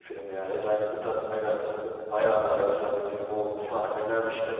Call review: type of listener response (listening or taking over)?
listening